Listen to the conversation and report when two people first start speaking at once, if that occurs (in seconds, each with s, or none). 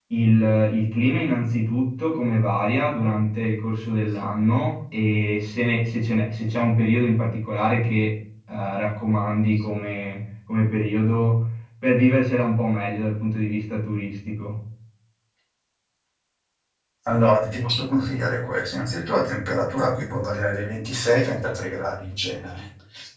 none